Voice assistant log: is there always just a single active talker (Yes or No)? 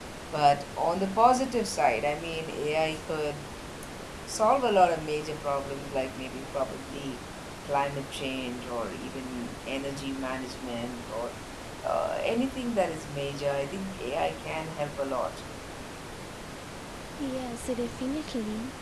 Yes